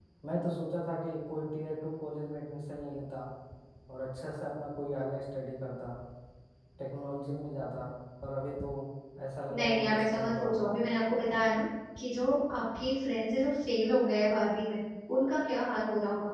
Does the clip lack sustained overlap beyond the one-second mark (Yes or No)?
No